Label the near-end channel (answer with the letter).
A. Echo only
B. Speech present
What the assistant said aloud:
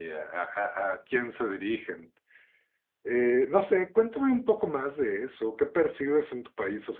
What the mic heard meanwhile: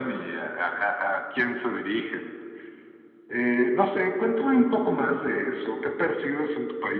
A